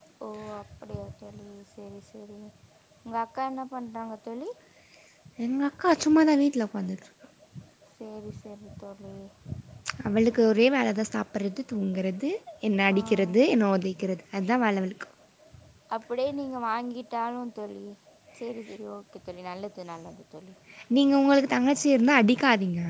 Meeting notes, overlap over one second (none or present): none